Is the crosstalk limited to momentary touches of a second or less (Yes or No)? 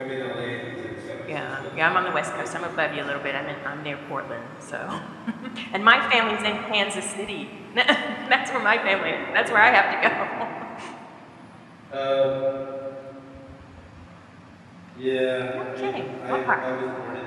No